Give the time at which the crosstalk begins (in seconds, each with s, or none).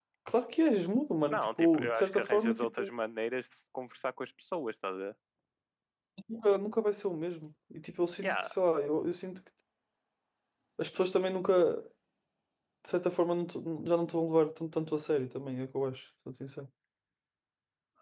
1.3 s